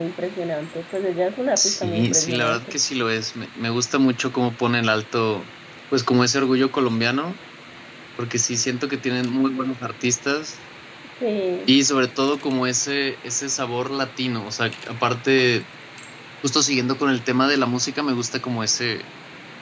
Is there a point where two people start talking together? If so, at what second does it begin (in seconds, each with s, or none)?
1.6 s